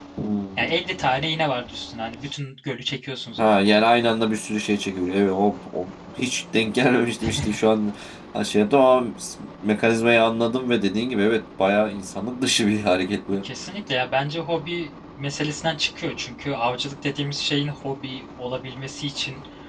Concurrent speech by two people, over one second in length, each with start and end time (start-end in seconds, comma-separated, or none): none